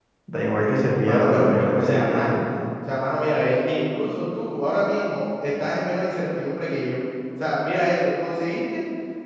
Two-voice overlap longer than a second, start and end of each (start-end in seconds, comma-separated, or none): 1.0-2.4